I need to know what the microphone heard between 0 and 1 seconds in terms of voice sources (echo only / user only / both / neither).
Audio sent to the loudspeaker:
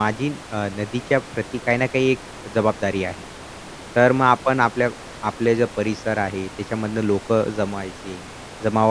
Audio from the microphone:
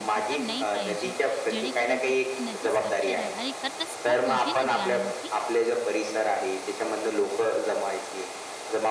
both